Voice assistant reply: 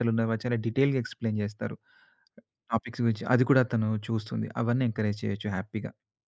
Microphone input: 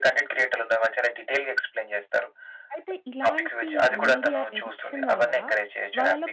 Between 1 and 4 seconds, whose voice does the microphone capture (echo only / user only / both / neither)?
both